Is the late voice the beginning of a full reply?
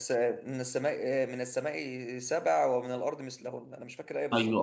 Yes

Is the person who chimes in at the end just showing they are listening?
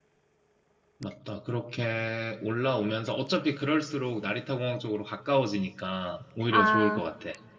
No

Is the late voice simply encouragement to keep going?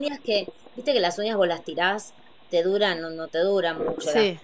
Yes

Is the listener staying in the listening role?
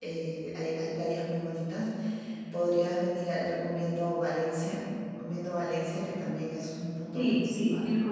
No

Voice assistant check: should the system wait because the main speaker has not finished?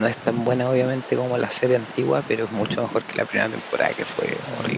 No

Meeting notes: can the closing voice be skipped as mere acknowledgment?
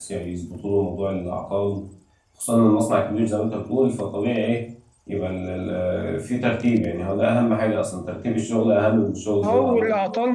No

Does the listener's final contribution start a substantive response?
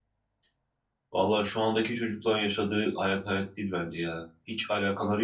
No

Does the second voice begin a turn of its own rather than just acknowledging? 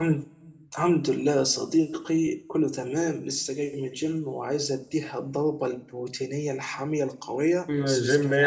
Yes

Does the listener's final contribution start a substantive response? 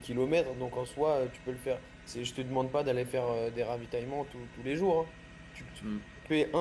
No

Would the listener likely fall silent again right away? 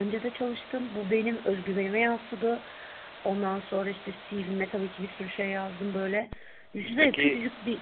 Yes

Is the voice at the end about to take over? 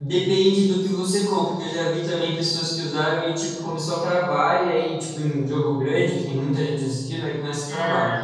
No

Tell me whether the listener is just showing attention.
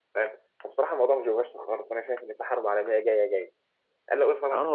No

